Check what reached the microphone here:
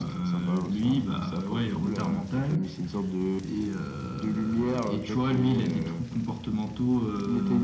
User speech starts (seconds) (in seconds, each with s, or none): none